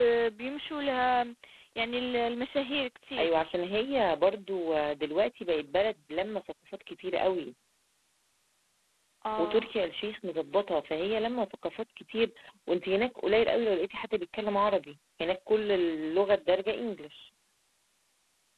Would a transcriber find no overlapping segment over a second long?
Yes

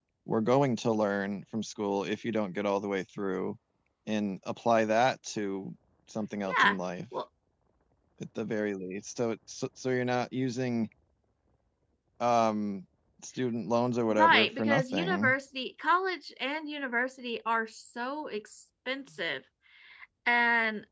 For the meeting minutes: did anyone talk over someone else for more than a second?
Yes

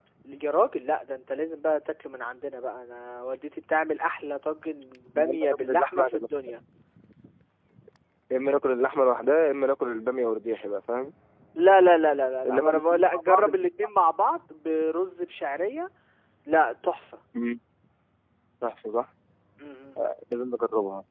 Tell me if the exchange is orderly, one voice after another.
No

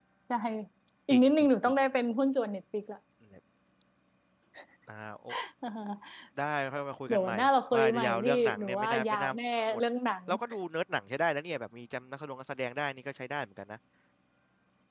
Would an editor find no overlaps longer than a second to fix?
No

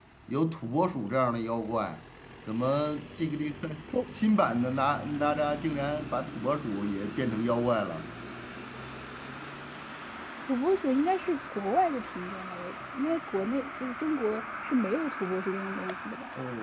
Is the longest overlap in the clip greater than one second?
No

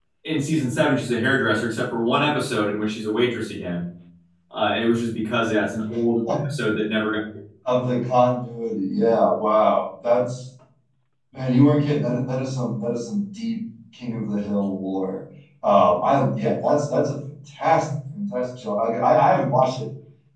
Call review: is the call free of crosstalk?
Yes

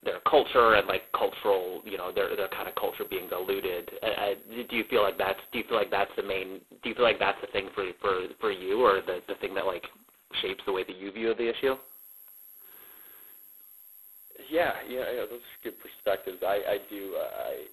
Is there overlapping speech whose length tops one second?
No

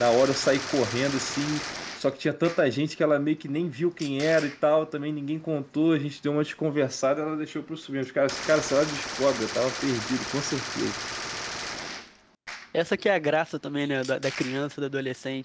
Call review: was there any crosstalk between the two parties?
No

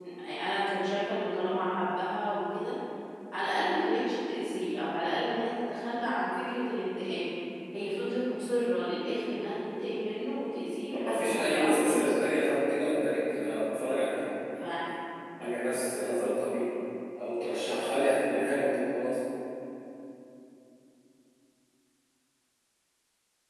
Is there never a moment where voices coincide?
No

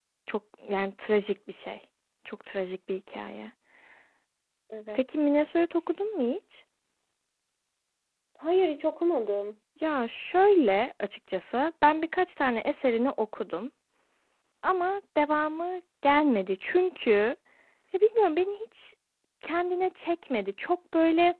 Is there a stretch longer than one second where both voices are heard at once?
No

